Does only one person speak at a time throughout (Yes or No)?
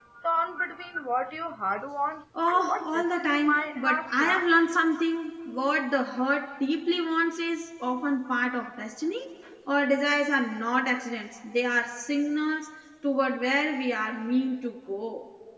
No